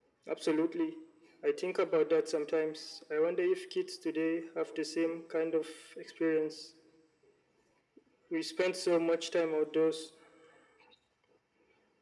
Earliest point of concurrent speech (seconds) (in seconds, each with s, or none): none